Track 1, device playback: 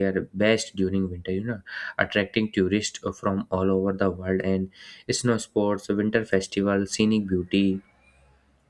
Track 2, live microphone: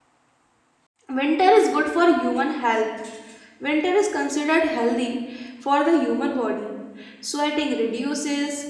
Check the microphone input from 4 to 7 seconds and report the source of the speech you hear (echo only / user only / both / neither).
user only